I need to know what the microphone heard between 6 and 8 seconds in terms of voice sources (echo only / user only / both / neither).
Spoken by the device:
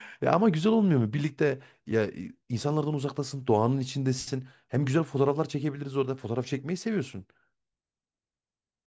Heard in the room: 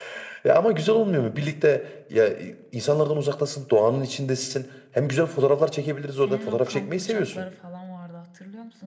both